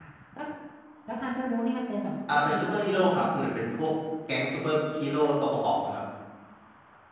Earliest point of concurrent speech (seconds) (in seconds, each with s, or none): 2.3 s